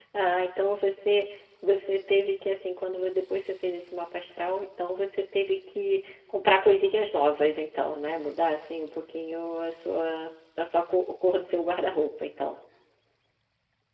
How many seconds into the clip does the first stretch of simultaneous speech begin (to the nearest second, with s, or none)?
none